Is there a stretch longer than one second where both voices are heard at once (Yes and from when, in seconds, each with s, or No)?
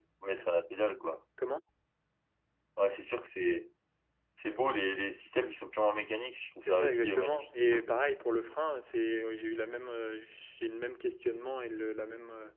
Yes, from 6.6 s